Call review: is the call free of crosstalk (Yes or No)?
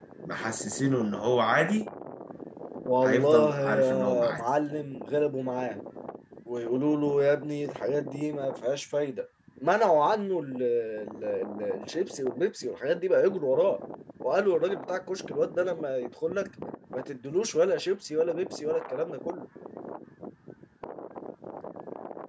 No